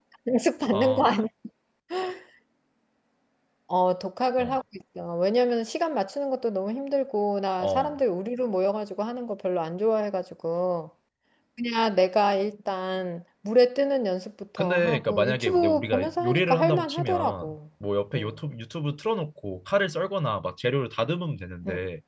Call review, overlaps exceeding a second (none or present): present